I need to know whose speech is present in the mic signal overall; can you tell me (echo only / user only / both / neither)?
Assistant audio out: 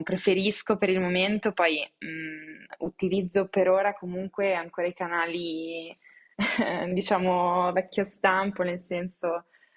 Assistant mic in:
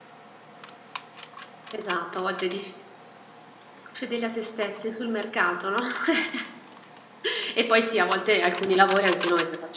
user only